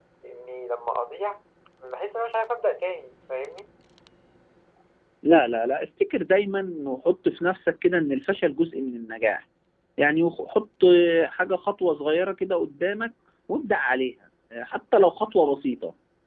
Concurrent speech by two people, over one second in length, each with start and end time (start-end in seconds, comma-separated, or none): none